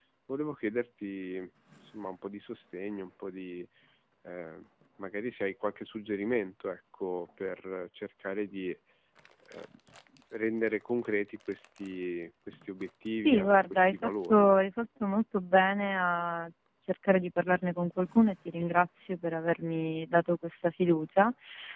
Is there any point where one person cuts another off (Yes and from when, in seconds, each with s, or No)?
Yes, from 13.2 s